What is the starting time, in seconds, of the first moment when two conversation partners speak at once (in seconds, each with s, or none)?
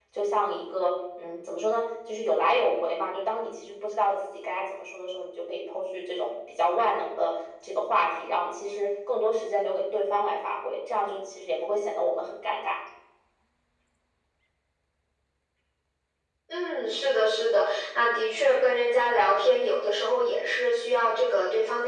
none